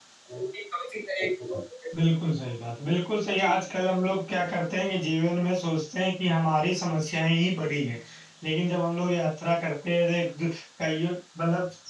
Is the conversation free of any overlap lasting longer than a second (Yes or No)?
Yes